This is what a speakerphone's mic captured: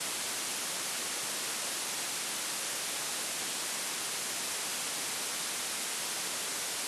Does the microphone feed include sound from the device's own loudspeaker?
No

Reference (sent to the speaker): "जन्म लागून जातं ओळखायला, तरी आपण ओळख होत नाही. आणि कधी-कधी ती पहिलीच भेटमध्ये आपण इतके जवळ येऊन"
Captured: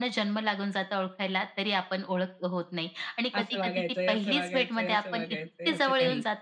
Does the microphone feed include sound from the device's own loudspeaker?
Yes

